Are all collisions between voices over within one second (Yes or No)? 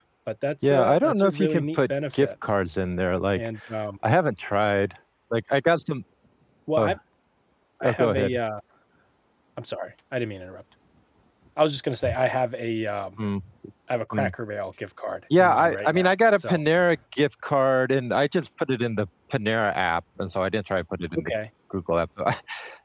No